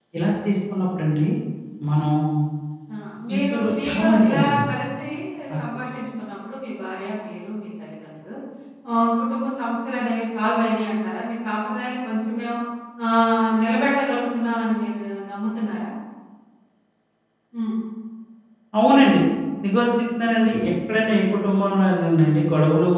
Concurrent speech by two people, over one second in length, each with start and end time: 3.3-4.6

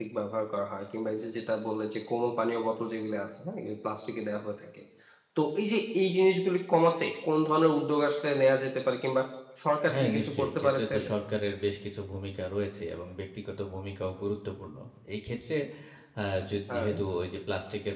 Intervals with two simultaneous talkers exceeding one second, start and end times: 9.9-11.1

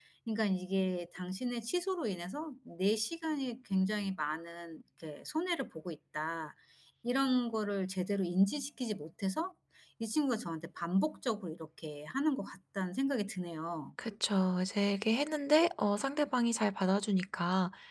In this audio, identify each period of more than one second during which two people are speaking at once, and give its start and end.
none

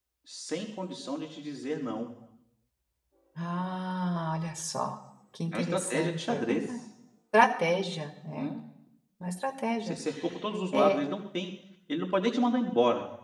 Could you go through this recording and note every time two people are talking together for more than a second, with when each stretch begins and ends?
5.5-6.8

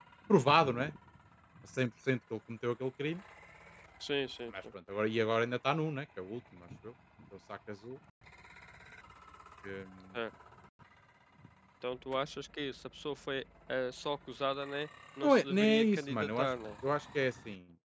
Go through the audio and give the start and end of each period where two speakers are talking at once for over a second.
15.2-16.5

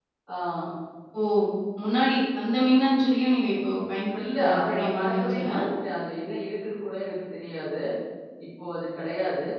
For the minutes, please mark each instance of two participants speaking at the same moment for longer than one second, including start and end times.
4.2-5.5

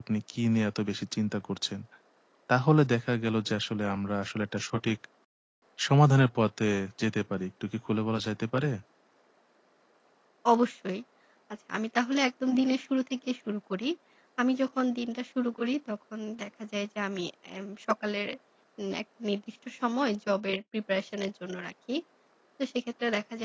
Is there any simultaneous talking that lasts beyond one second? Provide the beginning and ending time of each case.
none

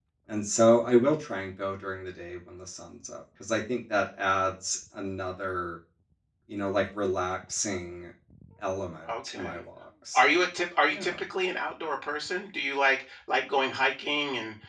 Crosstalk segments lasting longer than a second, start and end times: none

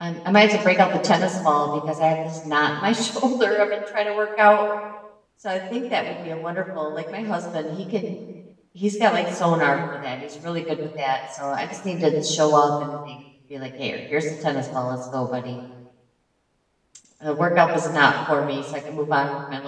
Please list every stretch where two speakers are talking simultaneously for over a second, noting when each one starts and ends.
none

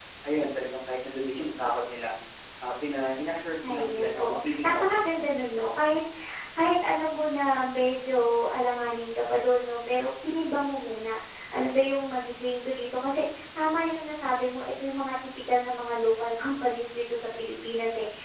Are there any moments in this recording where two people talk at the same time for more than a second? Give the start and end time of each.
3.7-5.4

